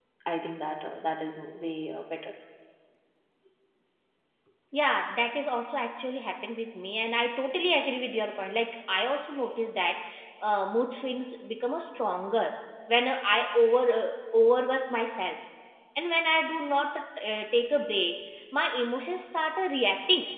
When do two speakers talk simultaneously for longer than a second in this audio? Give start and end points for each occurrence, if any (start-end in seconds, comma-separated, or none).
none